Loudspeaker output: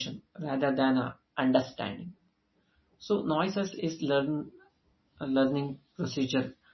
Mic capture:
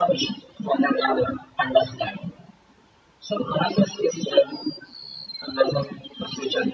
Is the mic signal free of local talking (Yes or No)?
Yes